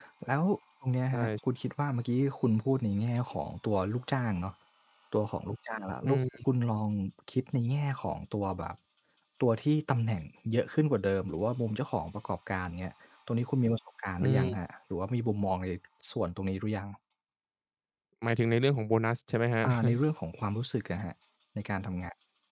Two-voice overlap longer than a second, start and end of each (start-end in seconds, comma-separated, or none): none